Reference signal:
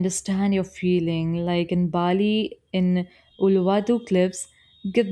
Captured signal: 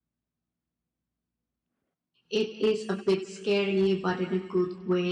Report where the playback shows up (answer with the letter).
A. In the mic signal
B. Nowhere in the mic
B